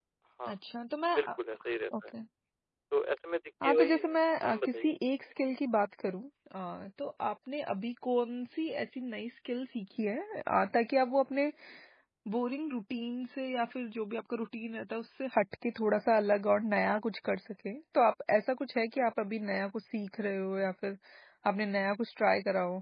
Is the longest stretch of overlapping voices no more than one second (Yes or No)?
No